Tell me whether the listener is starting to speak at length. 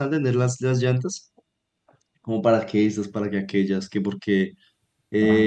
No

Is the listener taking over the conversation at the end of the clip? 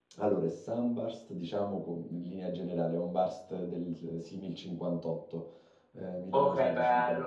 Yes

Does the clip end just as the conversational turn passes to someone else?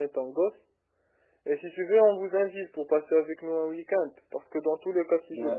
No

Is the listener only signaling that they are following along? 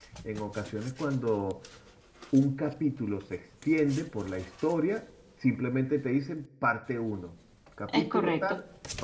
Yes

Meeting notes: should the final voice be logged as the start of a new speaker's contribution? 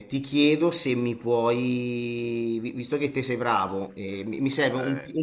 No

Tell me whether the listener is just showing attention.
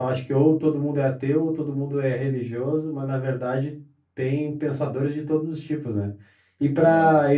Yes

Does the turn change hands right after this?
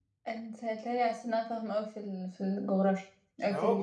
Yes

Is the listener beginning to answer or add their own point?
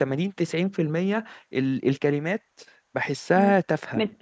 Yes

